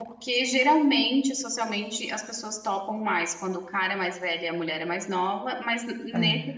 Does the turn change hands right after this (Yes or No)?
No